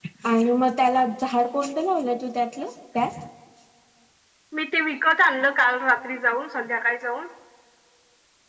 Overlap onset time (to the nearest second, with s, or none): none